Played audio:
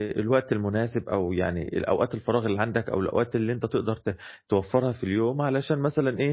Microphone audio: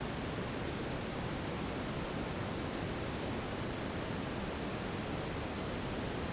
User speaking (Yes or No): No